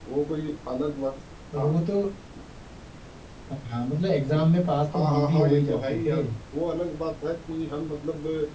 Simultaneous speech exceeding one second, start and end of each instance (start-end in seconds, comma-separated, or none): 4.9-6.2